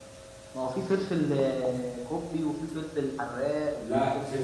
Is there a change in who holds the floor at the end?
Yes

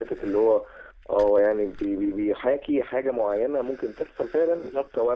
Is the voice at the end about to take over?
Yes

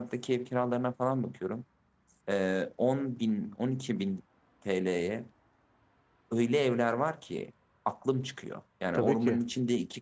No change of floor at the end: Yes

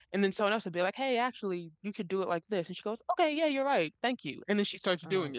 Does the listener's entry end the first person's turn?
Yes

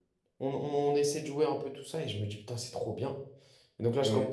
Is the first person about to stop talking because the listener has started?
No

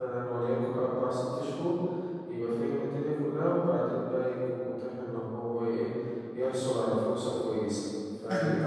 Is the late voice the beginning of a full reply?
Yes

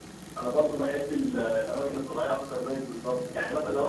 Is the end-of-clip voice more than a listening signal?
No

